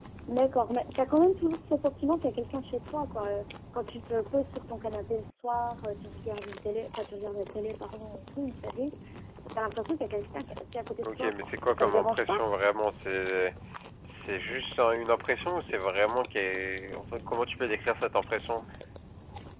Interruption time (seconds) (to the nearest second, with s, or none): 11 s